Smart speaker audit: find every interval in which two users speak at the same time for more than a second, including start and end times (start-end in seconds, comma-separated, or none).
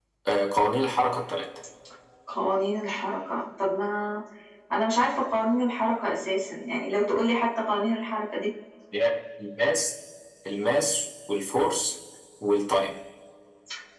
none